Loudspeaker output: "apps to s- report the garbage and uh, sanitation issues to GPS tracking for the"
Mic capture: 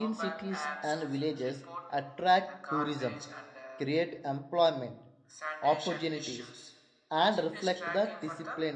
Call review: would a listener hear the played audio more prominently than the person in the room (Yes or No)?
No